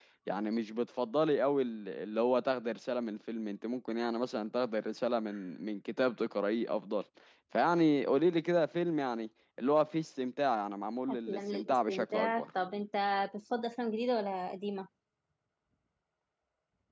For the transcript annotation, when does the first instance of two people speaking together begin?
11.1 s

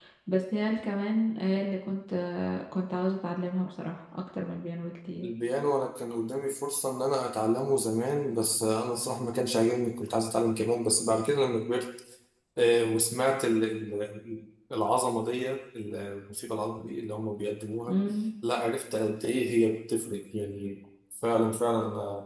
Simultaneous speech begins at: none

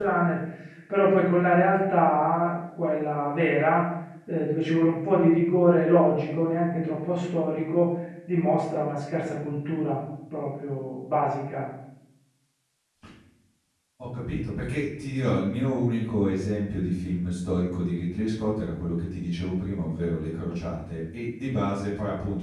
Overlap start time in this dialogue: none

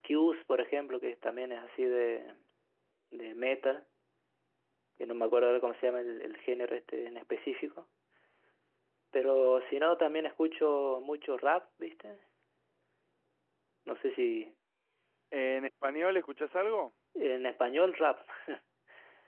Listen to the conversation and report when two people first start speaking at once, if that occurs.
none

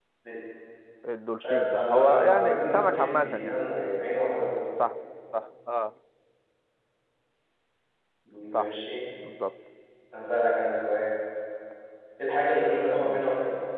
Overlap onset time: 1.4 s

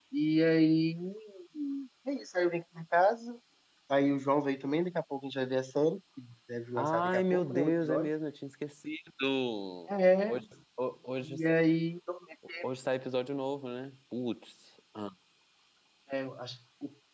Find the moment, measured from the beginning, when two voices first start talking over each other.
6.8 s

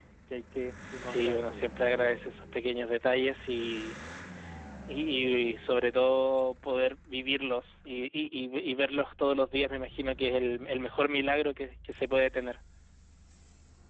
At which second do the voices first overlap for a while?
1.0 s

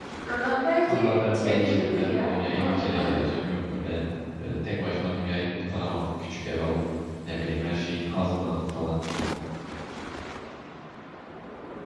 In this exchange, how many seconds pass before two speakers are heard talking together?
0.9 s

